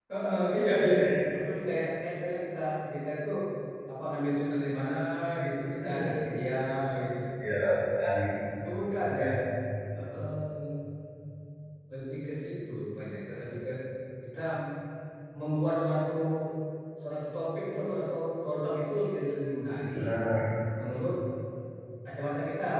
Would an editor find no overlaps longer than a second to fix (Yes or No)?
Yes